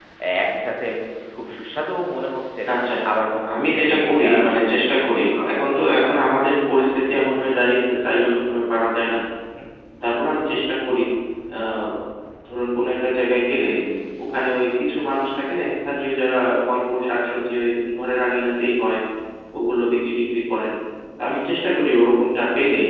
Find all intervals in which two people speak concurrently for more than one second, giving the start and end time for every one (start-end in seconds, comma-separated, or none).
3.5-5.5